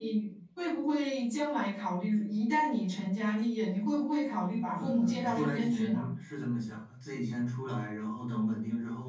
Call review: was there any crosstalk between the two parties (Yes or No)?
Yes